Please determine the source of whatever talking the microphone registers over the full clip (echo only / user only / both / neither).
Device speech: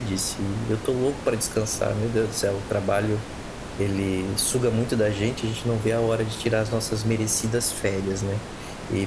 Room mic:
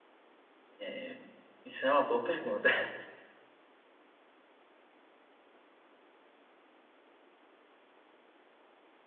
user only